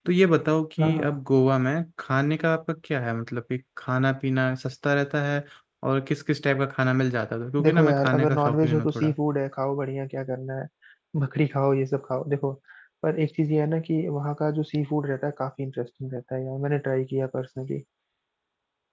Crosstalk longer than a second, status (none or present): present